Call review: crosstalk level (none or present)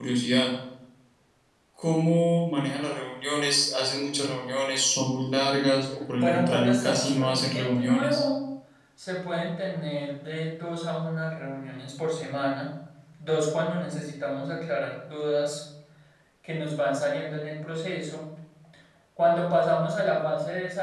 present